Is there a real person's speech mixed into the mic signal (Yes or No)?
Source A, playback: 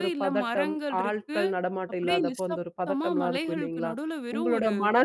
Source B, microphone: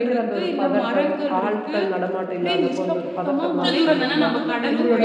Yes